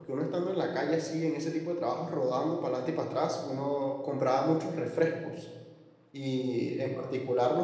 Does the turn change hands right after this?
No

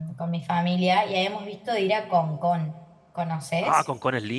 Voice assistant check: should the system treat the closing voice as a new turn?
Yes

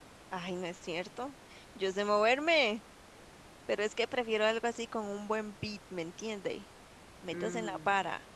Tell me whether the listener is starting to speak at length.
Yes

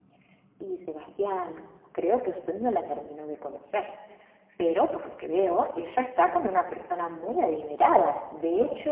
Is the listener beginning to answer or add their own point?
No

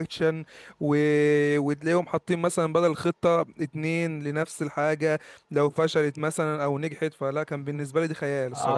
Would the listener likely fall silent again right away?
No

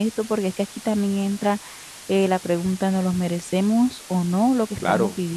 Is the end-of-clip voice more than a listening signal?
Yes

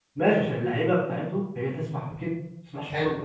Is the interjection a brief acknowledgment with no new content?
No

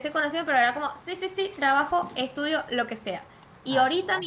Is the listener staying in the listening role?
Yes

